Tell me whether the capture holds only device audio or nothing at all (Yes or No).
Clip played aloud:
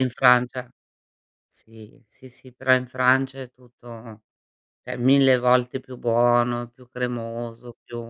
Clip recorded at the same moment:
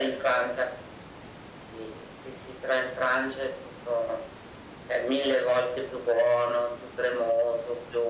Yes